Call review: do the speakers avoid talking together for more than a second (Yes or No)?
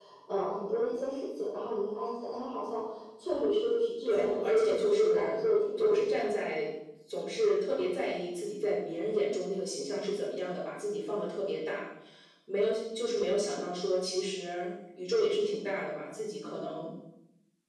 No